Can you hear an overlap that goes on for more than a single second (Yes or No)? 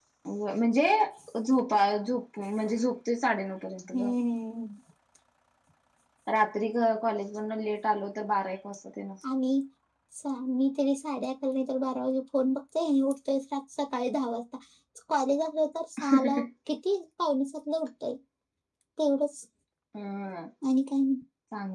No